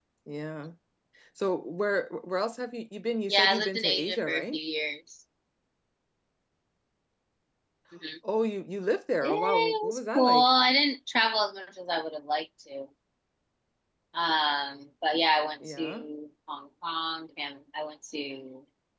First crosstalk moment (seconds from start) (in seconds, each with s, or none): 3.3 s